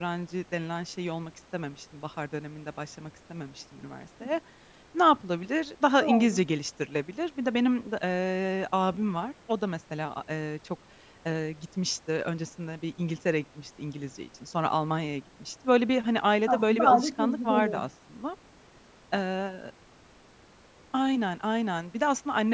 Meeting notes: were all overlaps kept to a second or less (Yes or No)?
No